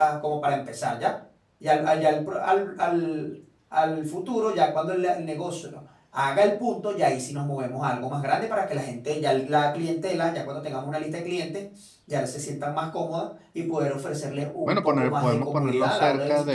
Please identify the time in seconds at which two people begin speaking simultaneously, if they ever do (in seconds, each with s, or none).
14.7 s